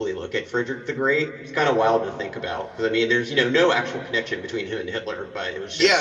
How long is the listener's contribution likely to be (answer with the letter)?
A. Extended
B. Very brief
A